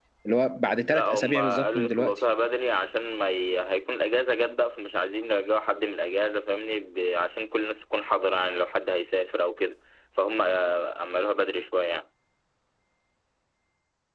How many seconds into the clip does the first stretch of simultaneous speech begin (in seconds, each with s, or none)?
0.9 s